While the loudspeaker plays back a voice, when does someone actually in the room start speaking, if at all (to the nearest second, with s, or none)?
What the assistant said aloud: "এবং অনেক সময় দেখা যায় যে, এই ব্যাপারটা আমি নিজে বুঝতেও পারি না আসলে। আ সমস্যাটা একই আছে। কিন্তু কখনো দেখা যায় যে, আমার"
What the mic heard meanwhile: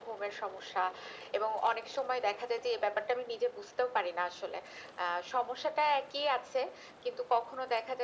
none